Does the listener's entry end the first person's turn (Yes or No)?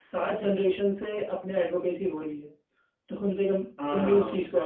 Yes